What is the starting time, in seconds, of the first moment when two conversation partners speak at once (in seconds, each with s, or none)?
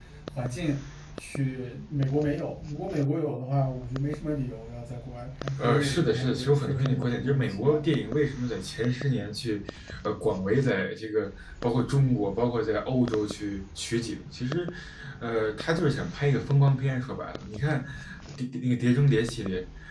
5.6 s